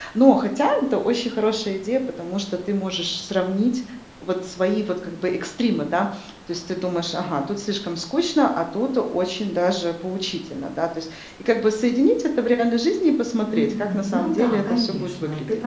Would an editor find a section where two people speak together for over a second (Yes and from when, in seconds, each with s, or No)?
Yes, from 13.5 s